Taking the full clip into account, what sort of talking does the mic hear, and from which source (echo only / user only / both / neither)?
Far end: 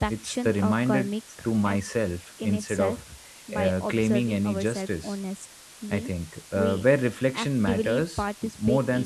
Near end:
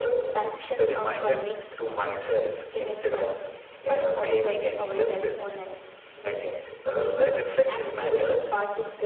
echo only